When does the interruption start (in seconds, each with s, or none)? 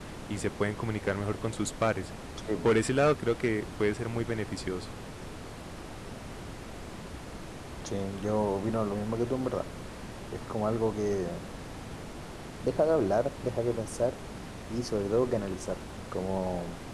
none